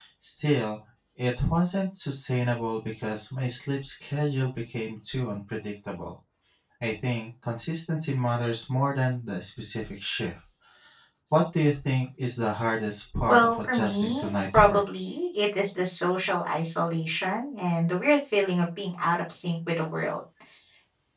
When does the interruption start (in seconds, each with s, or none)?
13.3 s